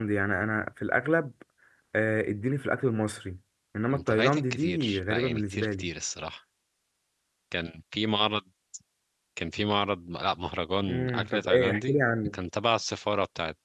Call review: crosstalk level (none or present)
present